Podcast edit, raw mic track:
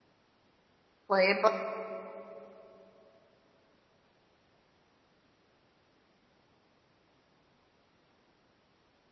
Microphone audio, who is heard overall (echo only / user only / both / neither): user only